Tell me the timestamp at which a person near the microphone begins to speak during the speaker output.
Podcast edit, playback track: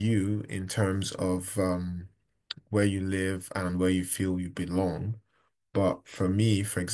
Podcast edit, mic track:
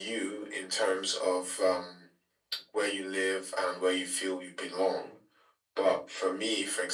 none

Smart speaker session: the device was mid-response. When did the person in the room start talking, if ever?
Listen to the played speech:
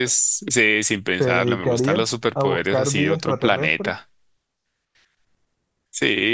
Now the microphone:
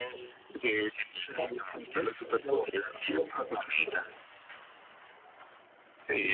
none

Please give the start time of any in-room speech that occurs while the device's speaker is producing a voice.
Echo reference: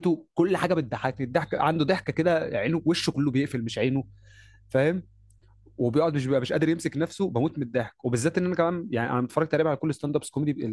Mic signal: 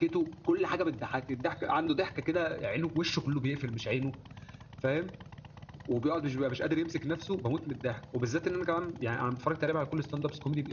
none

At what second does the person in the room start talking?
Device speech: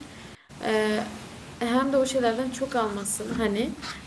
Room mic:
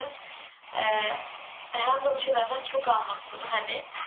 none

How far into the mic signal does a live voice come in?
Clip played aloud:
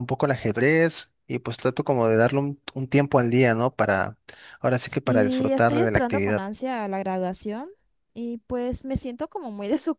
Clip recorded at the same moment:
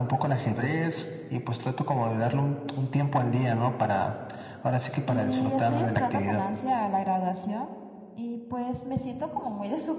none

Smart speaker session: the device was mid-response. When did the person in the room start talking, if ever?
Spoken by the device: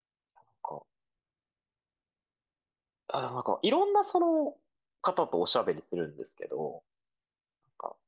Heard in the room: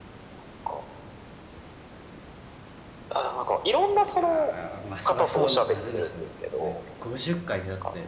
4 s

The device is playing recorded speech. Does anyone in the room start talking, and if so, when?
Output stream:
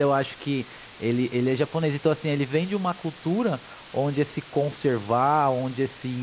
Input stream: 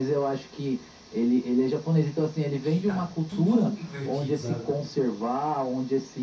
3 s

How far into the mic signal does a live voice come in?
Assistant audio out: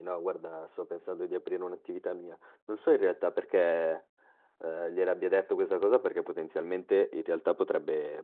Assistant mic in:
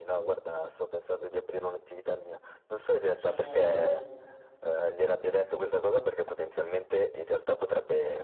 3 s

